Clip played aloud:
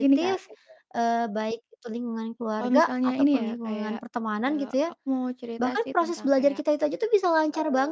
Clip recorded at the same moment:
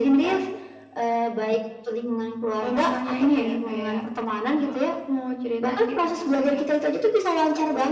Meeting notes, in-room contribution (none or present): none